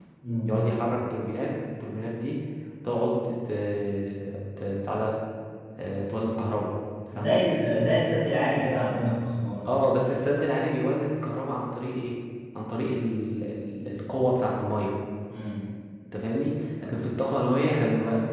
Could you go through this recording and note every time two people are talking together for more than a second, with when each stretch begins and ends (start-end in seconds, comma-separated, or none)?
none